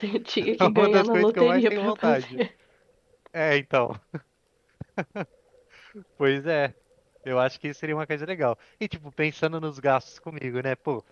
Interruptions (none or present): present